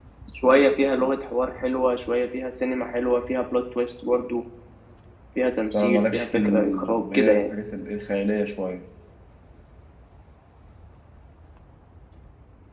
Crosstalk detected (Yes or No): Yes